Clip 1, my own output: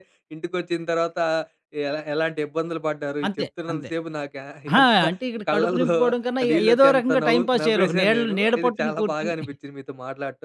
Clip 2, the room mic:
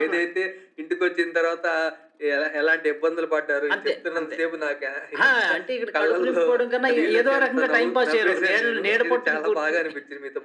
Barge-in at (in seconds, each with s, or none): none